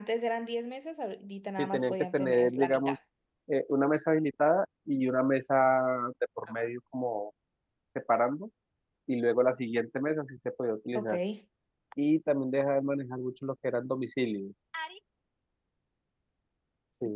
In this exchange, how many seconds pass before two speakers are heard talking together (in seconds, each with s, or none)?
1.6 s